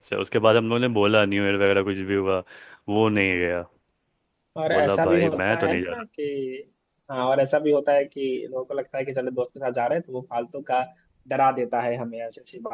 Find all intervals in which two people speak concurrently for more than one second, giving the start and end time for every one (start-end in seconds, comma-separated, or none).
4.7-6.0